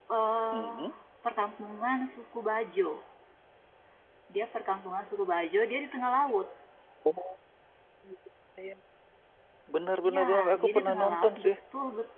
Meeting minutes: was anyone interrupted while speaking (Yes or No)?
Yes